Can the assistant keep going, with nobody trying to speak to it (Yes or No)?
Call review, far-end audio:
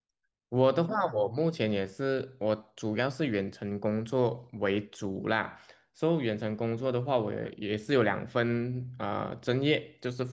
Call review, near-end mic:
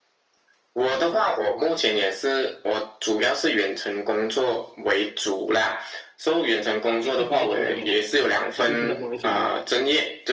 No